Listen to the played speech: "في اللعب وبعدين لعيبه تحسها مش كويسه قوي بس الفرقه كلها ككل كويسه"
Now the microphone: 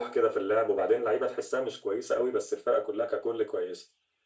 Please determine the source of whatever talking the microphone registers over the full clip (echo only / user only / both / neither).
echo only